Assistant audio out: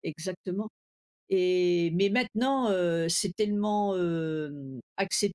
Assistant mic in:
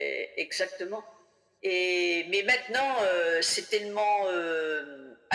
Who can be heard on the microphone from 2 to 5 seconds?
echo only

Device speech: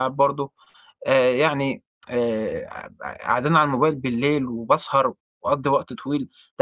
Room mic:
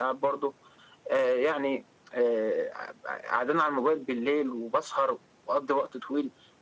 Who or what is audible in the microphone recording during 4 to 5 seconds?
echo only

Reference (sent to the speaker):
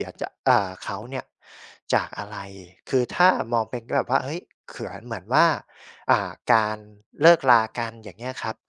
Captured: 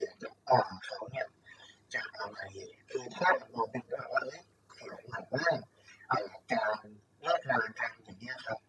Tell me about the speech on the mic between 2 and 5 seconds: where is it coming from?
echo only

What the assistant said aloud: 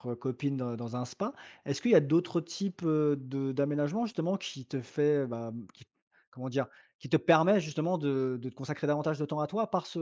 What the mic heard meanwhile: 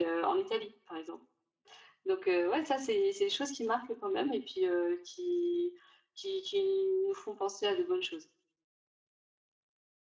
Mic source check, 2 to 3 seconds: user only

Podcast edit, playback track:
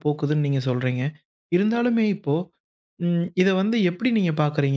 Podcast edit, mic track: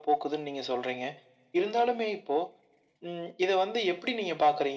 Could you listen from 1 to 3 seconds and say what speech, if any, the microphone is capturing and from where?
echo only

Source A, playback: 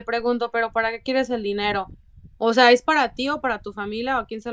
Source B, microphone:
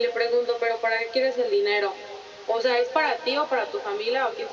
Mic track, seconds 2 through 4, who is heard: echo only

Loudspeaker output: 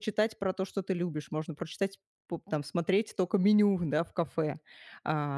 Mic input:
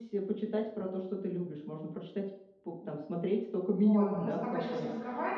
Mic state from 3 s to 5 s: both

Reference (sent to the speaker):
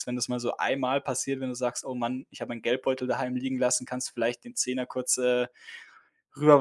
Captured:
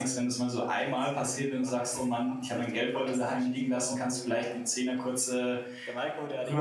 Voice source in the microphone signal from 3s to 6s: both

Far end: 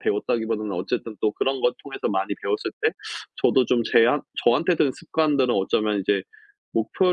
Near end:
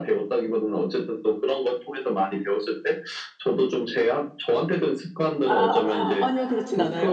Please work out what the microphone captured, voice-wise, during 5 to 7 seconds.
both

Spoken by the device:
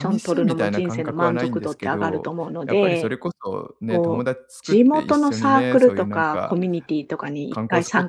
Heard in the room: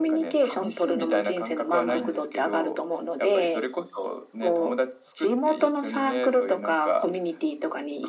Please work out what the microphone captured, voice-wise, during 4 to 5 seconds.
echo only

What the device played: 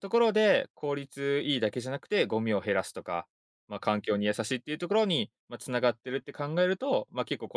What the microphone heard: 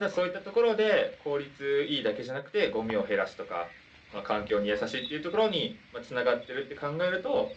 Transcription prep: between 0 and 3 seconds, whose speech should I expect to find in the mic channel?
echo only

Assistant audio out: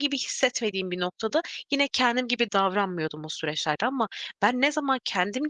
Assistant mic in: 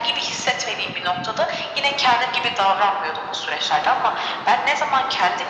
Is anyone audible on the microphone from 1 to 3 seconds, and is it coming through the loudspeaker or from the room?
echo only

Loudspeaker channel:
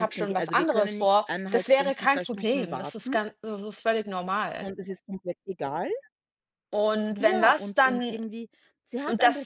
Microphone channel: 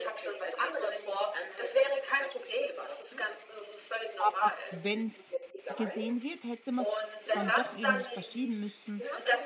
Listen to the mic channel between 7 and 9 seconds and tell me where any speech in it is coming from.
both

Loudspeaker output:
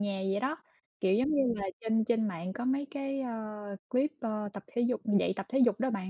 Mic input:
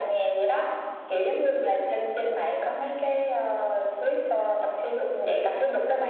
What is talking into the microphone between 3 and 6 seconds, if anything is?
echo only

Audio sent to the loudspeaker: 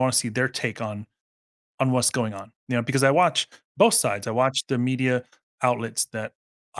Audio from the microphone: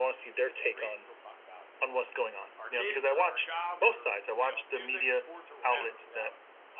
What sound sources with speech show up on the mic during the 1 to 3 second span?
both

